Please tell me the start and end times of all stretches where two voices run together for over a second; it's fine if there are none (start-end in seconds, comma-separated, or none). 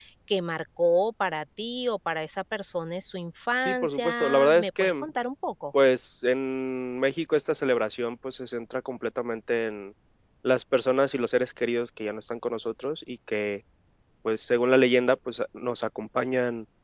3.6-5.0